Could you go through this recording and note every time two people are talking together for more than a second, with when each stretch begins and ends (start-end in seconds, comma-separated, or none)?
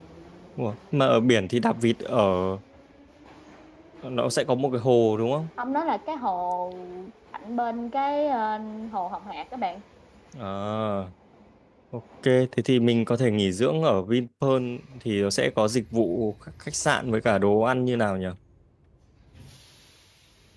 none